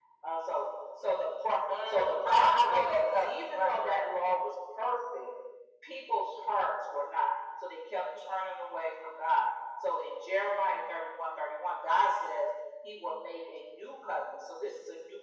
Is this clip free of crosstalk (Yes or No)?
No